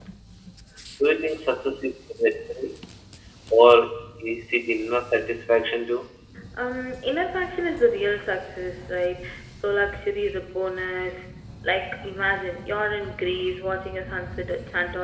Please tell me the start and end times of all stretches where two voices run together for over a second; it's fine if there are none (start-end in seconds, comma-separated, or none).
none